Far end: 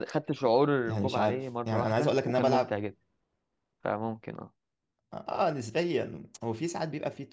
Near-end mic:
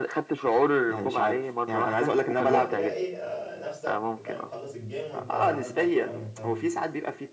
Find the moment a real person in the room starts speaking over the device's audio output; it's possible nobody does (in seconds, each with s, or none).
2.4 s